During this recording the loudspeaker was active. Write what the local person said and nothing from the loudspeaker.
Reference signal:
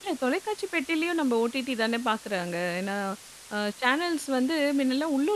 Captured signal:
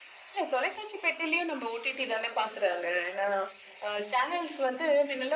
none

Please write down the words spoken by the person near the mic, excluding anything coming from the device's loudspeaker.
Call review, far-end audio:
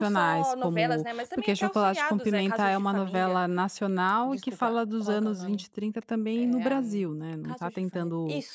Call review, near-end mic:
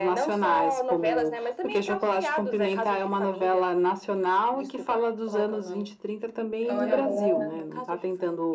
é uma novela

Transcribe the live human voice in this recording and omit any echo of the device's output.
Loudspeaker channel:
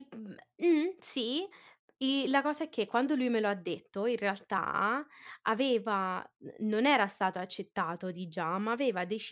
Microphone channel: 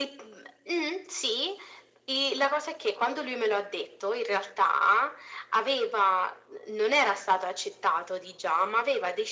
none

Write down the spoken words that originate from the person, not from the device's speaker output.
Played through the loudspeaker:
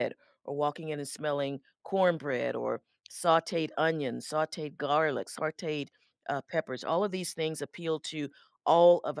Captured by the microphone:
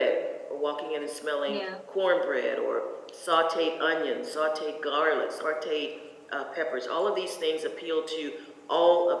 Yeah.

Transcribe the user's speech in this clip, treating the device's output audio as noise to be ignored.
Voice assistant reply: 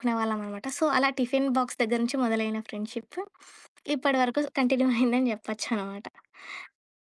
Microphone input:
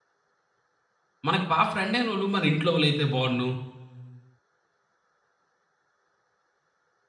మనకు బా ఫ్రెండ్ అయినోళ్ళు మన ఇంట్లో వాళ్ళైతే బావున్ను,

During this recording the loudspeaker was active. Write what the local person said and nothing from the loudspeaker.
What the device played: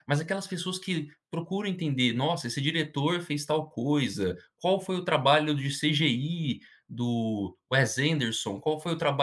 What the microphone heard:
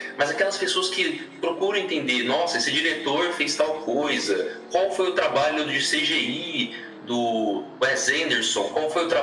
none

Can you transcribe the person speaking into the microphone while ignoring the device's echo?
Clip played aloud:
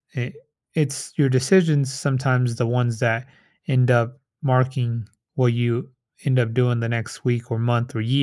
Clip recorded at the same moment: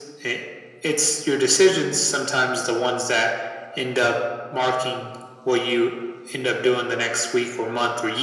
none

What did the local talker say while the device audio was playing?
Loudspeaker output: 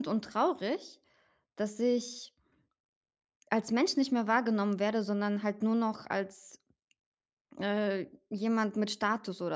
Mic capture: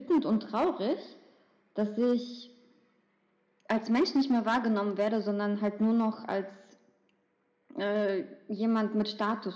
none

